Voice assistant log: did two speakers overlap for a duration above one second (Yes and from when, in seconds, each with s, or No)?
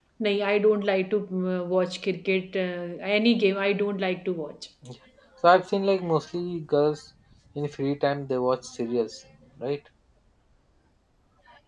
No